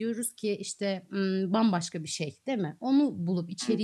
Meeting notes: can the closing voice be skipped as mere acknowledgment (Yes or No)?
Yes